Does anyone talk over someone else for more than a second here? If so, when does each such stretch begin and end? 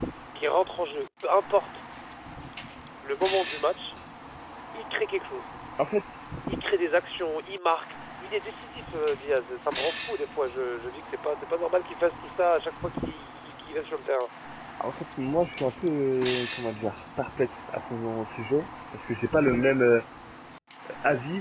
none

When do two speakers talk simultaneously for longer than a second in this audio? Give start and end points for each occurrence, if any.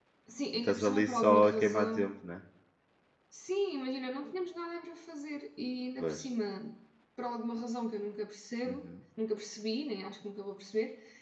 0.6-2.1

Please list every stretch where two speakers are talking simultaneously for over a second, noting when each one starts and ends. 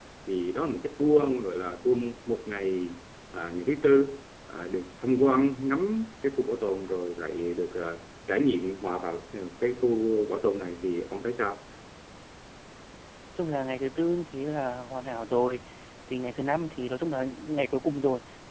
none

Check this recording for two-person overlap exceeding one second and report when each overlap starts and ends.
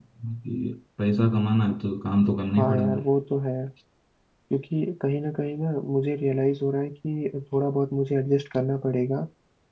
none

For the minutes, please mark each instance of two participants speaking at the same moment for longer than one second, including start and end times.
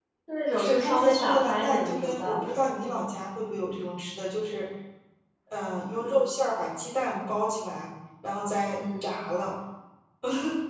0.5-2.5

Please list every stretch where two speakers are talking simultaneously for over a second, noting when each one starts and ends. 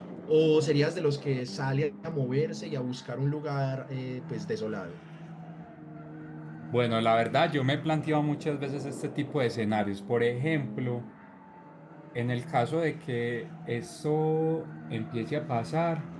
none

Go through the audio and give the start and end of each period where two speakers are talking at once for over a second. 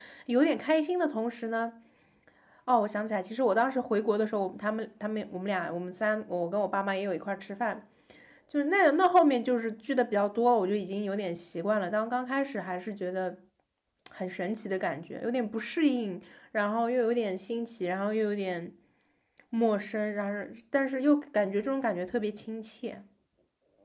none

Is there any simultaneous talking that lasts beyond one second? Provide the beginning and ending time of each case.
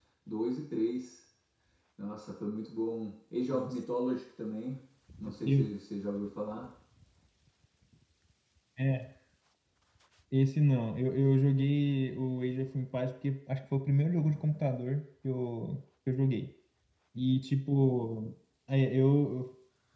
none

